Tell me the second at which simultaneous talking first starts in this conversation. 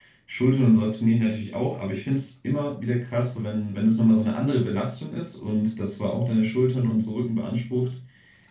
none

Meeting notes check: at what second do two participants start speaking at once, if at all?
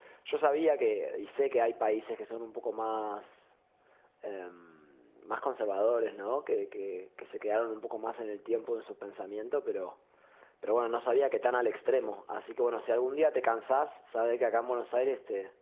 none

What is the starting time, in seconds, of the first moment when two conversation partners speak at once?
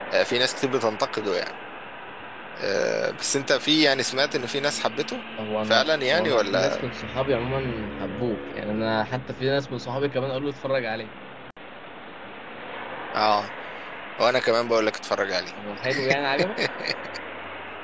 5.7 s

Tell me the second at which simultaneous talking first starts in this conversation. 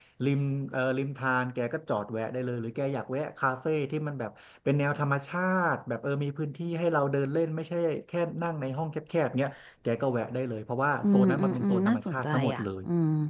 11.0 s

